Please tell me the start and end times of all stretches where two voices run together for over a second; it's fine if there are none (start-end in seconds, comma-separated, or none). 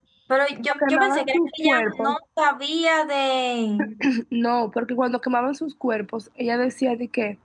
0.7-2.1